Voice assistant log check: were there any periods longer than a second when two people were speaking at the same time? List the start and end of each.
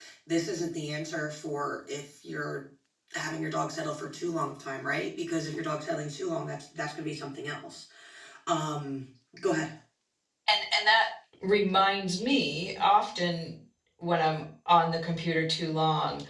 none

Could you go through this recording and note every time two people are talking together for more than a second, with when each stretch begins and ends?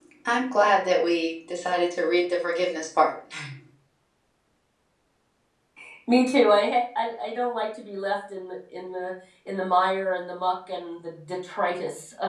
none

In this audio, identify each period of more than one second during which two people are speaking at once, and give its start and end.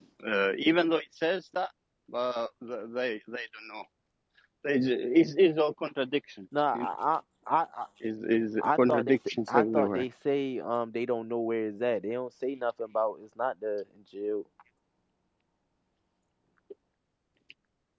8.6-10.0

